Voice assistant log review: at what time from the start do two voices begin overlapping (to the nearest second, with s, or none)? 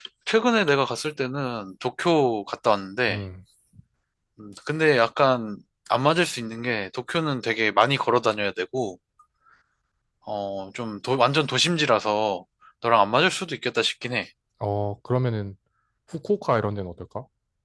none